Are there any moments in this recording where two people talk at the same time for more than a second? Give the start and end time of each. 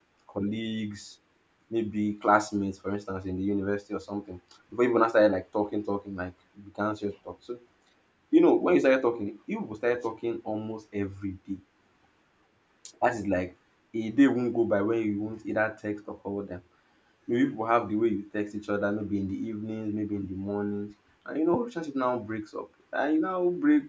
none

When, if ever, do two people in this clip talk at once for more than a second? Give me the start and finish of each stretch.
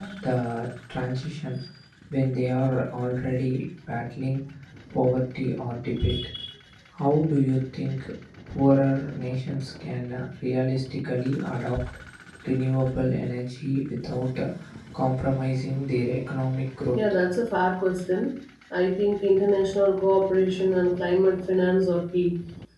none

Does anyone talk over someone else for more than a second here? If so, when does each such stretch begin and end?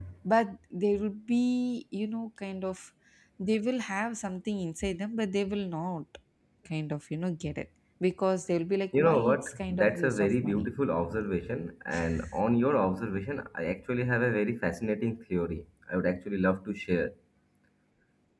8.9-10.7

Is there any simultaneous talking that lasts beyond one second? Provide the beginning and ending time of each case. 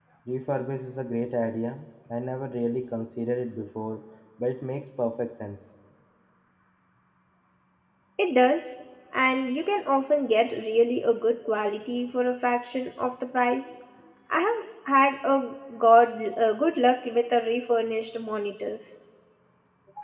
none

